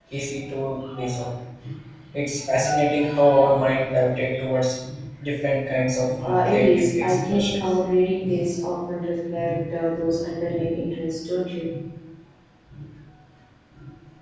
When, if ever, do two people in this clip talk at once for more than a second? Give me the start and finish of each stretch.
6.2-7.5

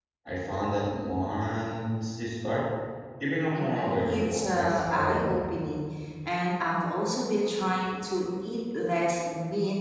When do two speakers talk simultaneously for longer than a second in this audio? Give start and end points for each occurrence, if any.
3.5-5.5

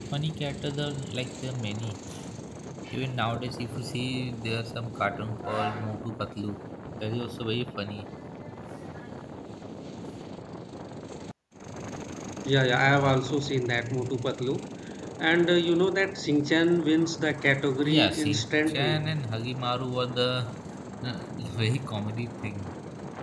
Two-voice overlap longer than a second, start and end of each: 17.8-19.1

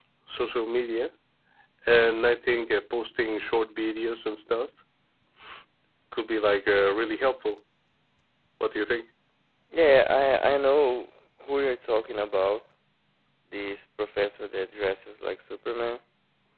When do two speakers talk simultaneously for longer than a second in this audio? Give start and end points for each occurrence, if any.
none

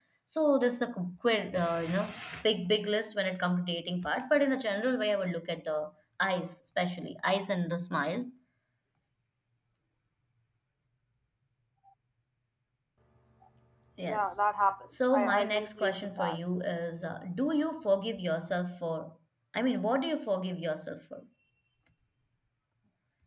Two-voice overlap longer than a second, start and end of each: 15.1-16.4

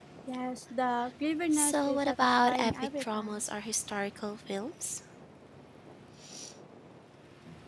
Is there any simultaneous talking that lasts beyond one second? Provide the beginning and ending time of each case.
1.5-3.4

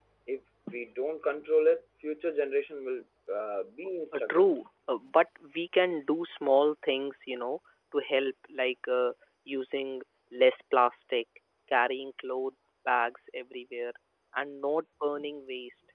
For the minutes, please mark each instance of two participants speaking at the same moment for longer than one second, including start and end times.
none

